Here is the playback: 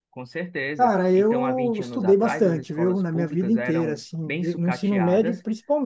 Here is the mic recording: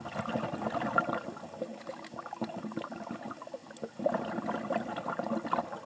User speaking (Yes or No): No